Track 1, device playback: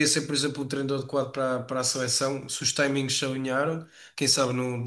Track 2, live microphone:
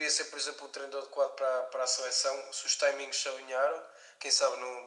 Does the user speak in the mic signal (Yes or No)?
No